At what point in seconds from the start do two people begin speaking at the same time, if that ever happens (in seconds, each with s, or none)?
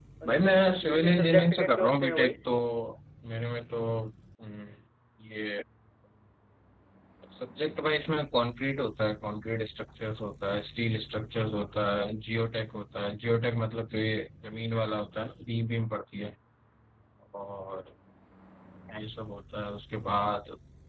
0.8 s